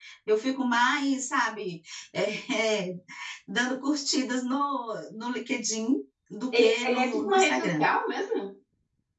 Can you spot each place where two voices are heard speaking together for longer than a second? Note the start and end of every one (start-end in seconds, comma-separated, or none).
6.5-7.8